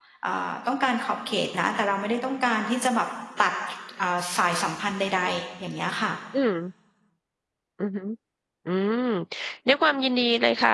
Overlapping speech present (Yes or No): No